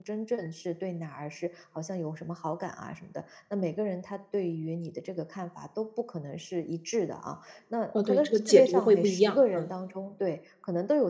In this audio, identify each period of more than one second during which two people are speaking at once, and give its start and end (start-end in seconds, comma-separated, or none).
8.0-9.7